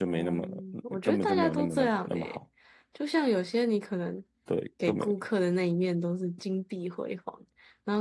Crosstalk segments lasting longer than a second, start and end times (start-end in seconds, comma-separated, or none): 1.0-2.4